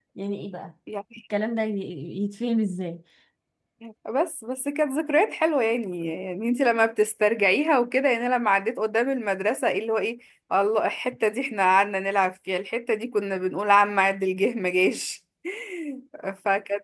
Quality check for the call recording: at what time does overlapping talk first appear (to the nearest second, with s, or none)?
none